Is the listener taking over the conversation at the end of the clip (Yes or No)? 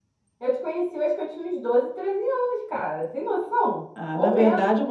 Yes